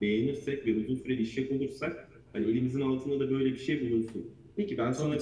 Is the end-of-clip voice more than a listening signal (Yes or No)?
Yes